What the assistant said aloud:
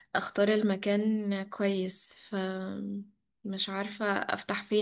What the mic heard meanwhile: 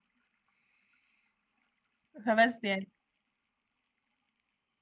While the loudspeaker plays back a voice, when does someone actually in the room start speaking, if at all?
2.2 s

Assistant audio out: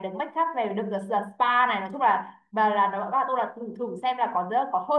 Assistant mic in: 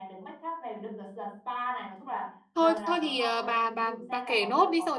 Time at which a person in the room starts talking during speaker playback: 2.5 s

